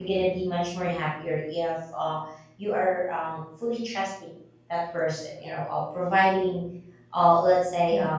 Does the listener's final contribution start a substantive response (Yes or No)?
Yes